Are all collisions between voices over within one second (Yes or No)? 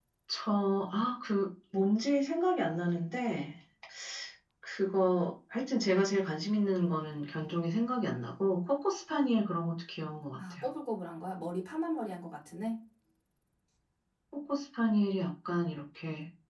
Yes